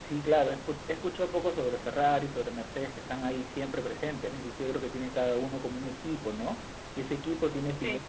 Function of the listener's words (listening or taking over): listening